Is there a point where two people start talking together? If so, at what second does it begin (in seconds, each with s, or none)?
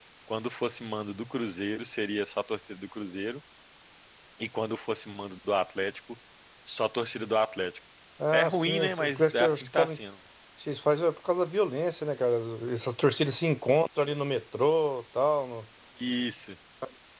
8.3 s